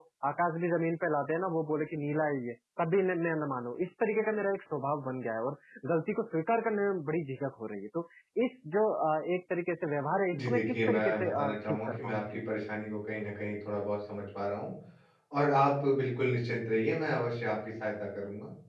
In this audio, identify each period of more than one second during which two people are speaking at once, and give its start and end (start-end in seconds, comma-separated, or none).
10.3-12.1